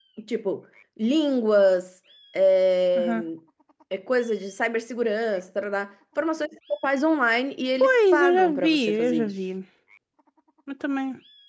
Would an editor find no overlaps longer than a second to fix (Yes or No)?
No